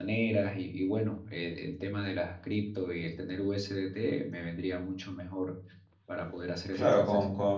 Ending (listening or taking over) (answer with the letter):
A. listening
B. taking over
B